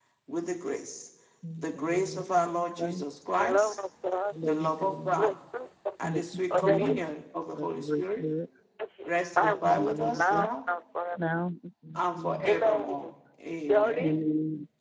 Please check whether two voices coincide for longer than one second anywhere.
Yes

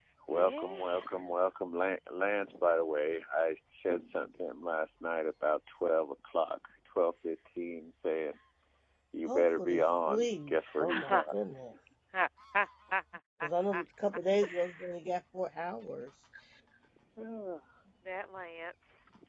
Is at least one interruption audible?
Yes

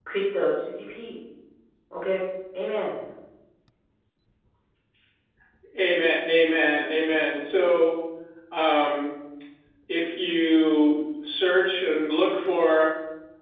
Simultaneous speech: No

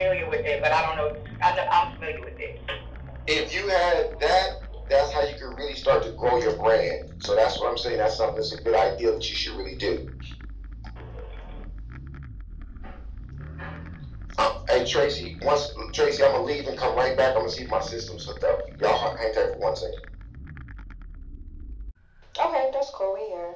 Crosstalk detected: No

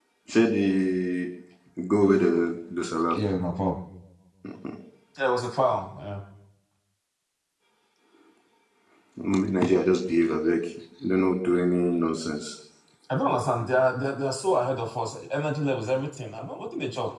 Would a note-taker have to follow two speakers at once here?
No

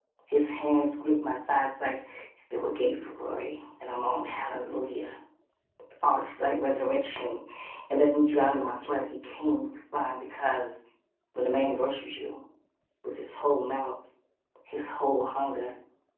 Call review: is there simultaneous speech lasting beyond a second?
No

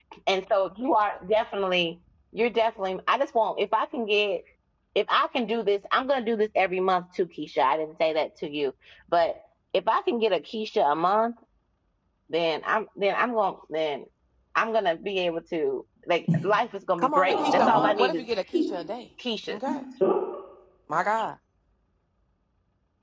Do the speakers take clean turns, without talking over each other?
No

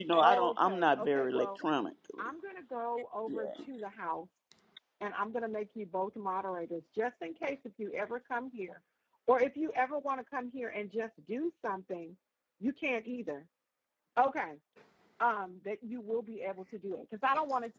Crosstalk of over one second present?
Yes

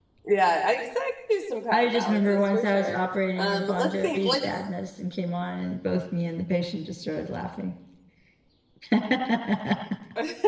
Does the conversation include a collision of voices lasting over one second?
Yes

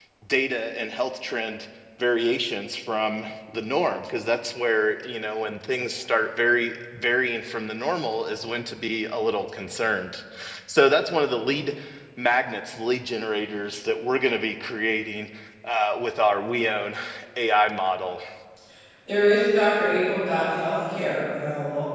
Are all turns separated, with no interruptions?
Yes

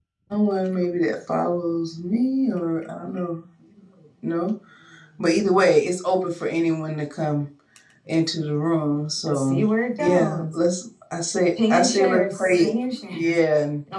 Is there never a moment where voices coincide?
No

